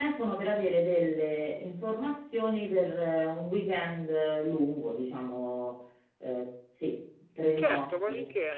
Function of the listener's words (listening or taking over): taking over